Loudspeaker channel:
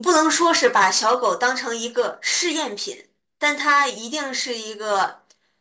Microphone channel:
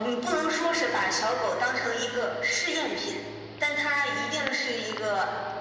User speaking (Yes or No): No